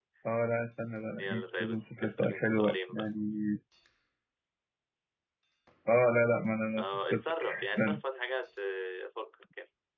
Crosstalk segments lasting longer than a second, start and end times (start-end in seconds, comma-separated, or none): 1.2-3.1, 6.8-8.0